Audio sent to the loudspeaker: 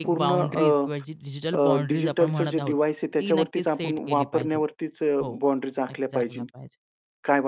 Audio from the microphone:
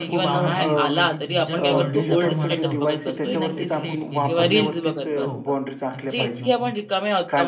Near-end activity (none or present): present